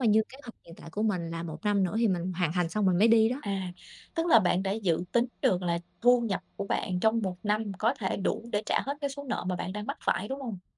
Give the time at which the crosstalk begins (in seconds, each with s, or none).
none